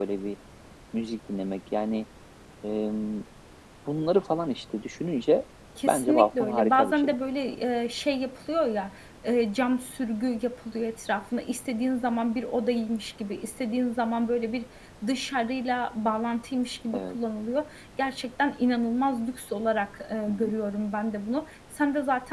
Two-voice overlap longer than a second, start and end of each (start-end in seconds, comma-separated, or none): 5.9-7.1